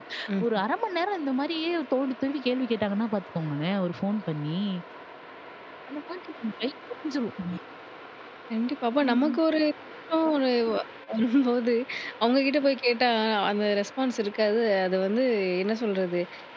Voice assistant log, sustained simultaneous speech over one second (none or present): none